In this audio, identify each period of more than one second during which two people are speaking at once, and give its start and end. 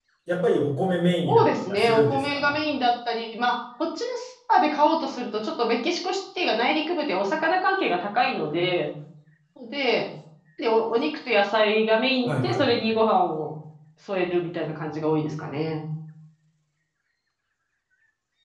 1.2-2.5

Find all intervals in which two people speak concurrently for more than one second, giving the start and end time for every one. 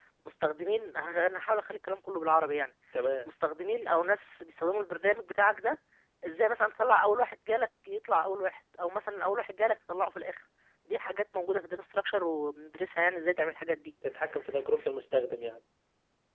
none

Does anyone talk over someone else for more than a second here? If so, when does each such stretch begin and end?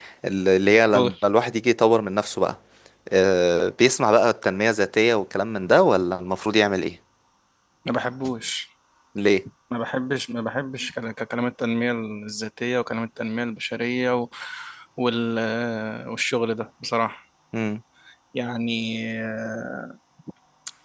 none

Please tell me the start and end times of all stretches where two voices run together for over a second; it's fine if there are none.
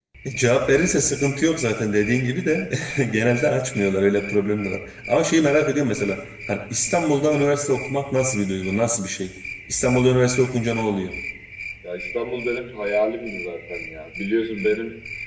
none

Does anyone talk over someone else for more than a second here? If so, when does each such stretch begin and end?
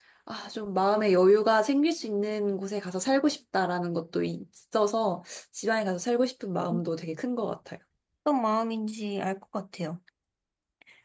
none

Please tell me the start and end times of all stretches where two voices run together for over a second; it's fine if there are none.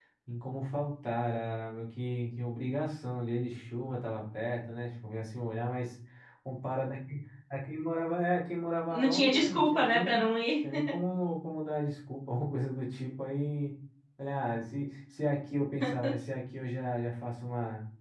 8.9-10.2

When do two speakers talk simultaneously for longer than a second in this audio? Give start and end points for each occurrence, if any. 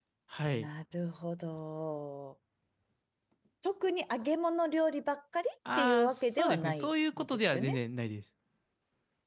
5.8-7.8

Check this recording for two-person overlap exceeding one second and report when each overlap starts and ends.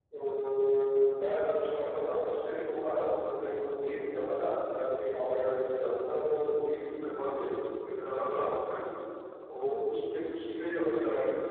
none

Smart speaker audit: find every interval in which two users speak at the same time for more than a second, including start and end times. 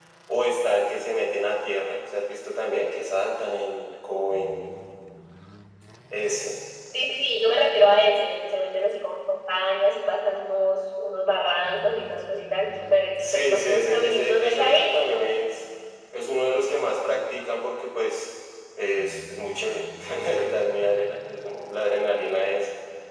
13.2-15.3

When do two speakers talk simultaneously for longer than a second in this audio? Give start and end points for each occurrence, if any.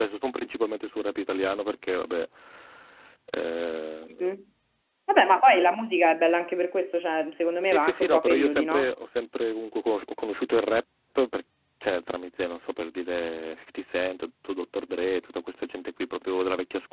7.6-8.9

